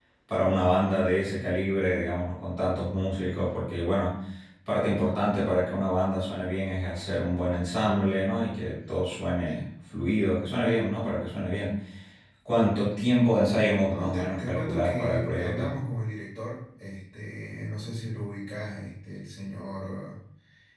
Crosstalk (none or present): present